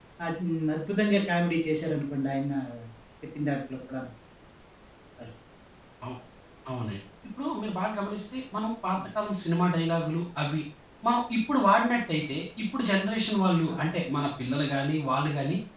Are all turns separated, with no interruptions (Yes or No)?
Yes